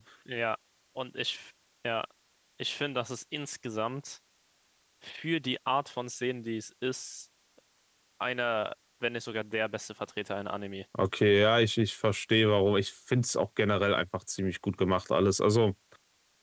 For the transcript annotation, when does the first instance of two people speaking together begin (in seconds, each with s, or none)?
none